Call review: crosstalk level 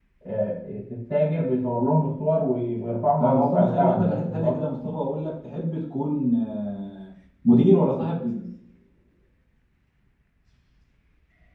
present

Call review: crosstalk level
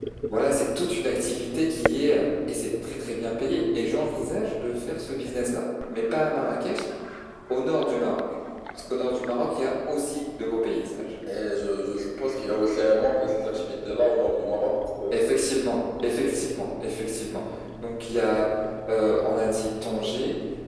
none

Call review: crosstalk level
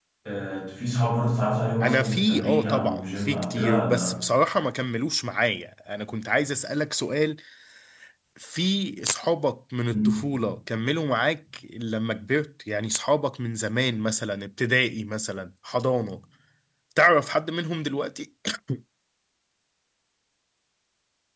present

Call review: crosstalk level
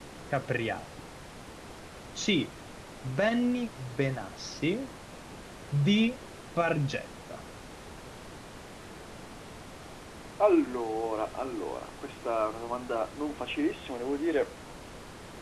none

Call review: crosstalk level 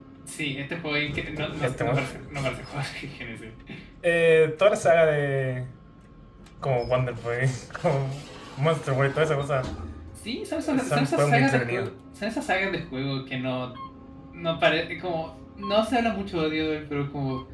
present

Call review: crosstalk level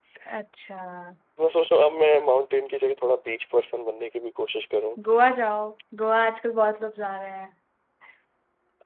none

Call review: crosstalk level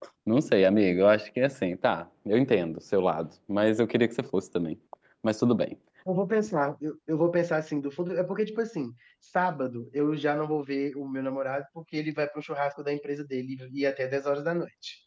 none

